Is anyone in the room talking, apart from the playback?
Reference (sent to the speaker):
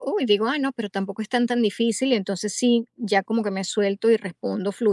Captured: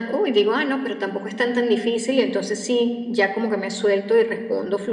No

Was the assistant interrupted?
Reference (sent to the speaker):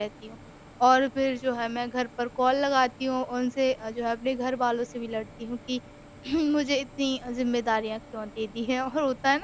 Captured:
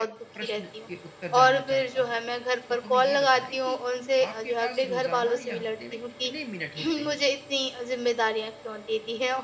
Yes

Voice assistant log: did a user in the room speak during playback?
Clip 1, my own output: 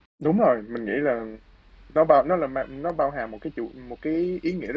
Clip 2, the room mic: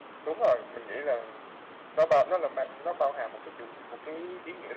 No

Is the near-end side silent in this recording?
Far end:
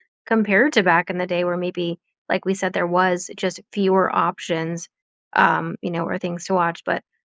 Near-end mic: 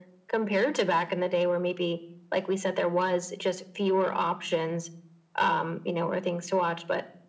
Yes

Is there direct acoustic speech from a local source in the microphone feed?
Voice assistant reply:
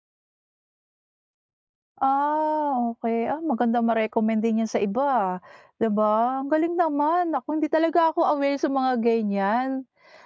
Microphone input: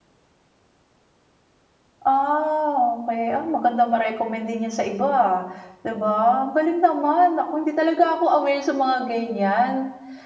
No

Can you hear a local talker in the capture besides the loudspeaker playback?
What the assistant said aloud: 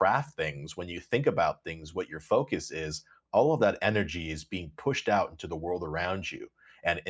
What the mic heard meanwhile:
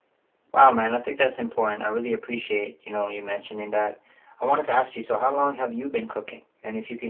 Yes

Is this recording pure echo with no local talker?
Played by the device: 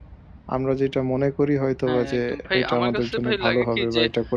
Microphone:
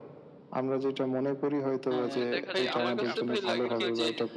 No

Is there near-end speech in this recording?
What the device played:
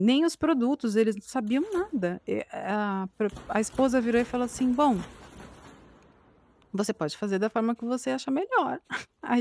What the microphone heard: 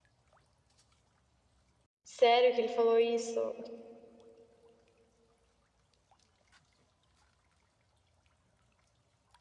Yes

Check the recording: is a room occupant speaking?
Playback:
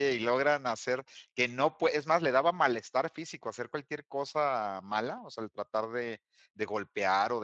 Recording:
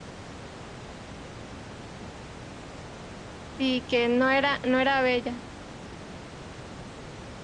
Yes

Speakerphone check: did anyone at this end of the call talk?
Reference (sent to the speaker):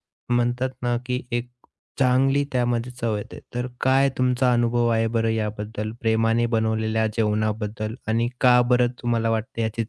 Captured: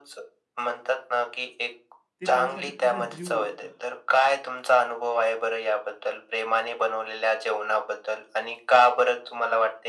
Yes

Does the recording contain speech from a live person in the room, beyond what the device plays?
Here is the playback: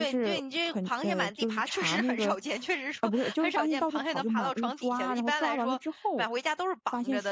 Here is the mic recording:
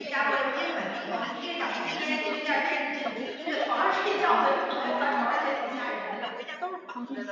Yes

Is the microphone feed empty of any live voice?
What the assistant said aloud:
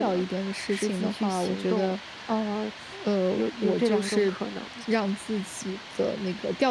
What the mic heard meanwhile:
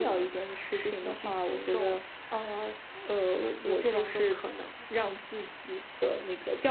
Yes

